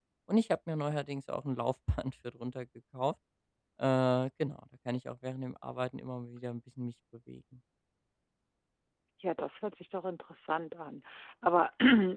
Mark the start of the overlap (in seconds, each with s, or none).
none